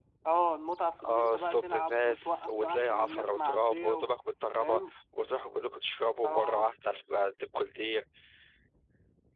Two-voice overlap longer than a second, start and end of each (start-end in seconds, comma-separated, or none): 1.0-4.0